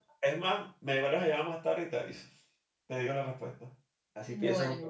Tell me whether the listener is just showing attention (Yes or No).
No